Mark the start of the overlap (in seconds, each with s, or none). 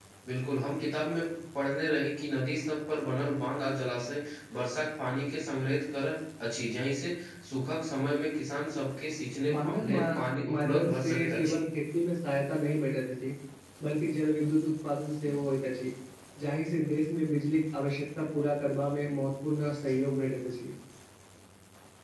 9.5 s